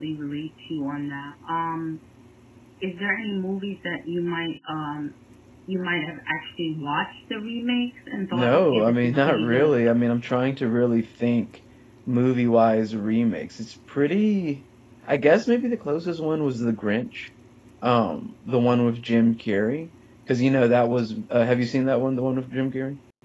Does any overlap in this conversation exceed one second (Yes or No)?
Yes